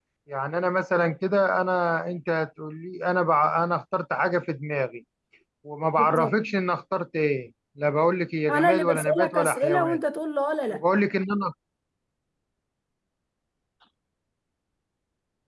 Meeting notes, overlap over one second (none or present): present